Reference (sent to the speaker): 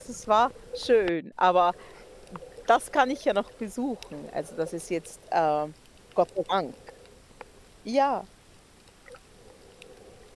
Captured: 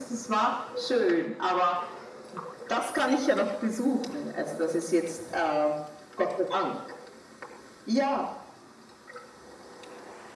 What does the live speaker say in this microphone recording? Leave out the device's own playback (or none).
none